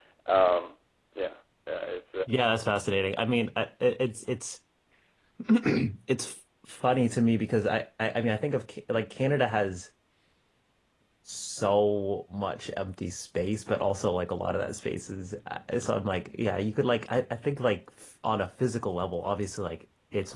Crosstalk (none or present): none